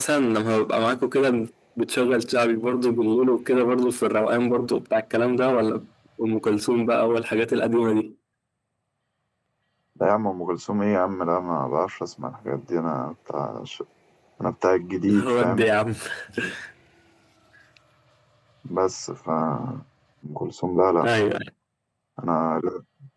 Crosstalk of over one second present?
No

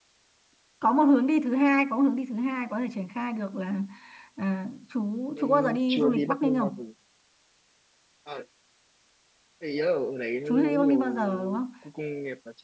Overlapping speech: Yes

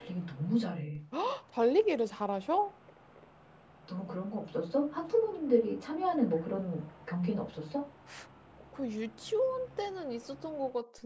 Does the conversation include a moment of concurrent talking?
No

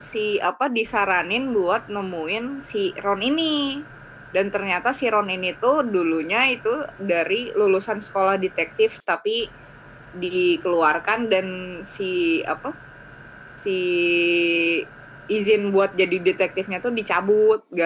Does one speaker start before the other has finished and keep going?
No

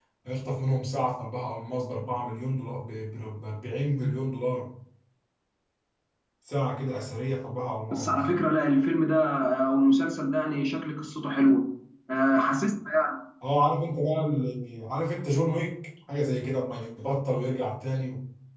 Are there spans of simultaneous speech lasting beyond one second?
No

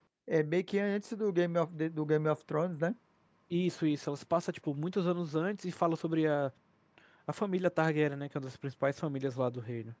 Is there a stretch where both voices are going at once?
No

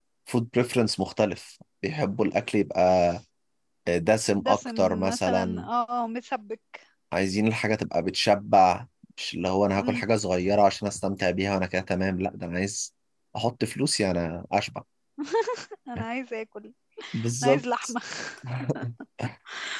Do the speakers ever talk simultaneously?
Yes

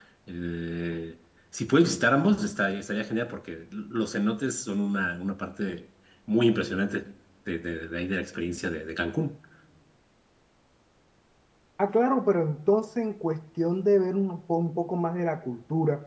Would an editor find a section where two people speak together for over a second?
No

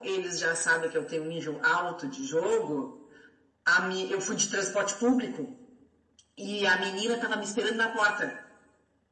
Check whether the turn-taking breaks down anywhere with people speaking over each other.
No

